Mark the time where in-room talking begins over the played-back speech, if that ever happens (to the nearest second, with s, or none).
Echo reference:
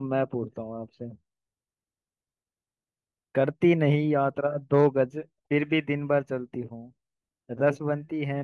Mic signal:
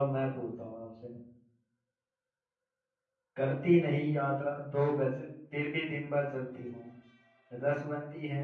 none